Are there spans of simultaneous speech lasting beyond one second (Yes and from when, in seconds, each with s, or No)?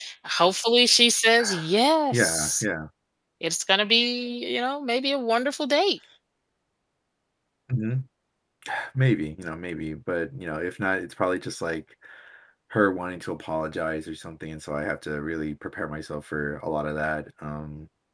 No